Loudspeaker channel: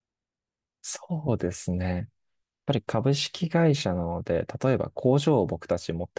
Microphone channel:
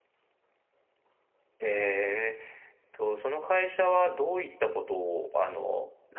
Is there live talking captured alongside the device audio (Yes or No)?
Yes